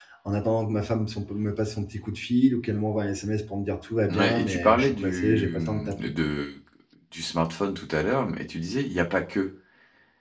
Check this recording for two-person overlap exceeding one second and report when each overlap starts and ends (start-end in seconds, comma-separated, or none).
4.1-5.9